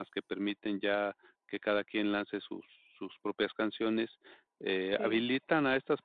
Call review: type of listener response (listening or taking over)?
listening